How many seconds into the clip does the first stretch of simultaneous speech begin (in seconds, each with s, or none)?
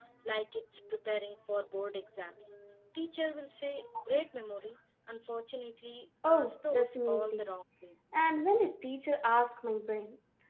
6.2 s